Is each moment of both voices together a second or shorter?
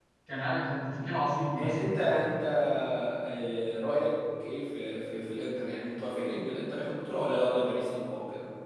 Yes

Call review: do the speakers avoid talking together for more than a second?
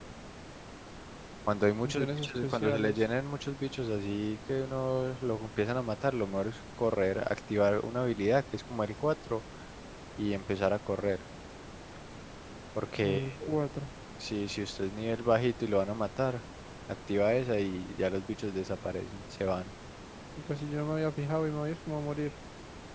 No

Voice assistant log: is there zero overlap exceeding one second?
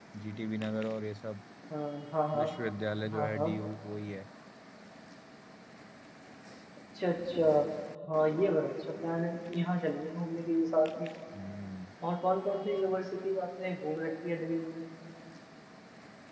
Yes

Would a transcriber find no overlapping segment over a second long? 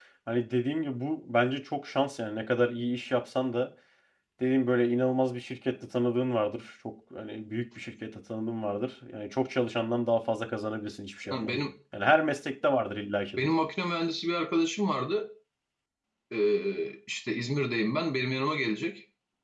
Yes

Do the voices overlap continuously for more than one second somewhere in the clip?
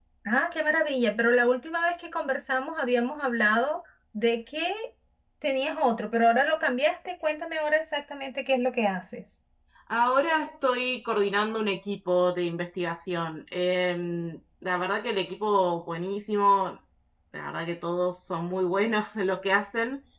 No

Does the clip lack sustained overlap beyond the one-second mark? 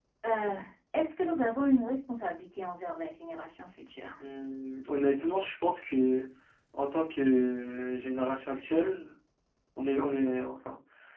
Yes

